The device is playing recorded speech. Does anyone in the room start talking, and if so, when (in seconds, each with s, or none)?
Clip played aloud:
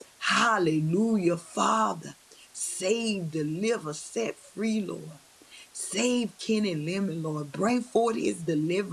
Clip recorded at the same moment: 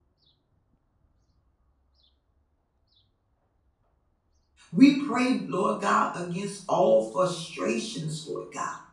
4.7 s